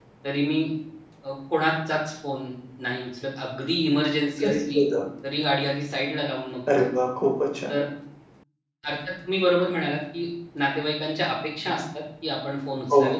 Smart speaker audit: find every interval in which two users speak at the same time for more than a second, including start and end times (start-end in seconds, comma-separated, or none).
none